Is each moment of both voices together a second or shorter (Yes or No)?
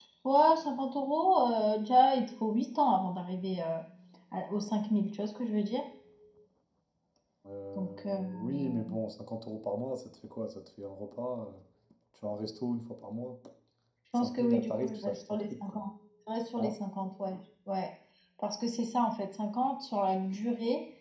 No